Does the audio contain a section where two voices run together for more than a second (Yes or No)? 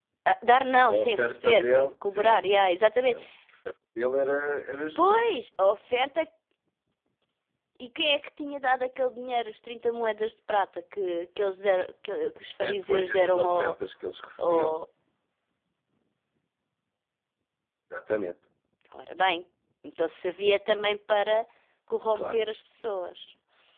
Yes